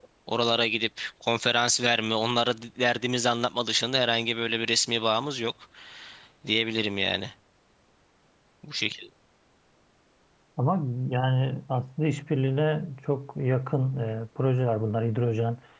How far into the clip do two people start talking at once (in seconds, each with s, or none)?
none